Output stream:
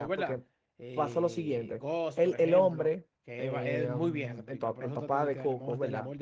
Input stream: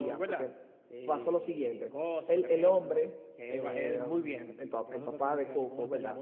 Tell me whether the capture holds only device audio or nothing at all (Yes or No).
Yes